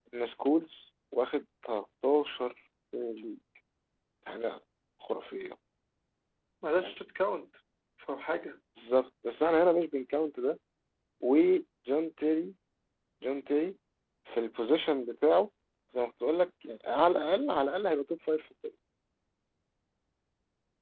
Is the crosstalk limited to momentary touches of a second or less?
Yes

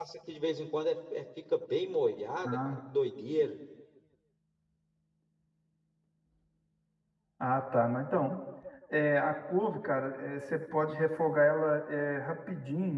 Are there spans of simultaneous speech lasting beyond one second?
No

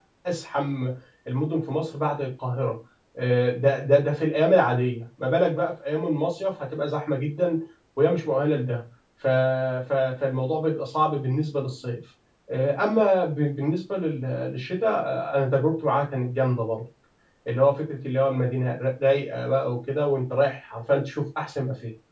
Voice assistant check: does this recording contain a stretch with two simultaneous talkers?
No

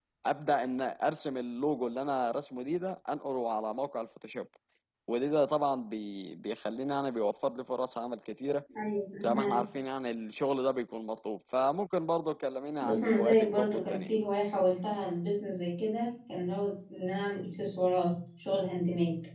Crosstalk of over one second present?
Yes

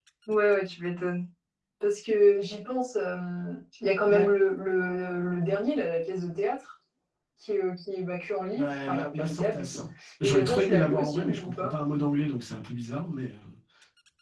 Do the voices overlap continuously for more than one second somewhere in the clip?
Yes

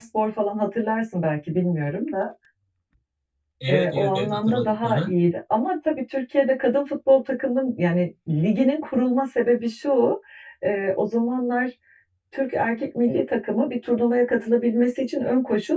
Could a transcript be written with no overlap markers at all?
No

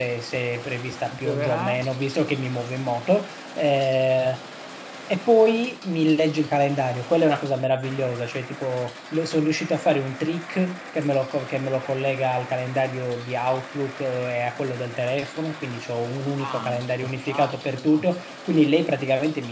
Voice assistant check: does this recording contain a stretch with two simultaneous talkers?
Yes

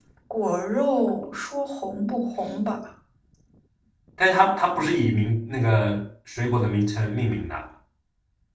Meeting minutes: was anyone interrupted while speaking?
No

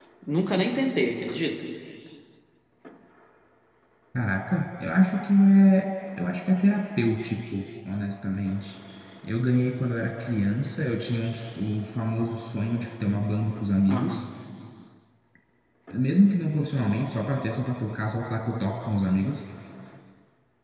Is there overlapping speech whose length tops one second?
No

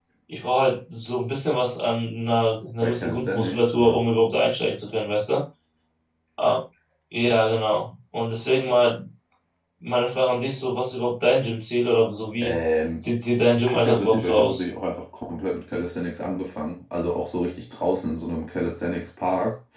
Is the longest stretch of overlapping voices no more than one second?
No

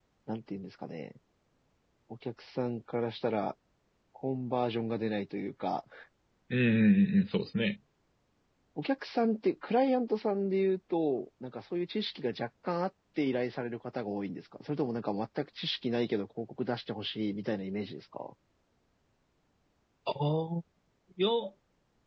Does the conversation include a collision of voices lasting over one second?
No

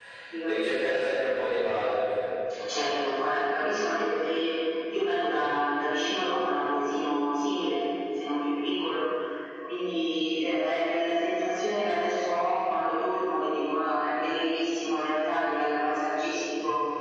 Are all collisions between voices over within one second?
Yes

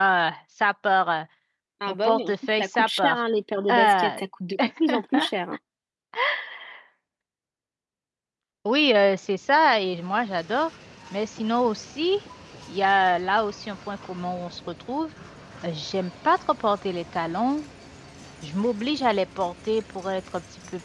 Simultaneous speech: Yes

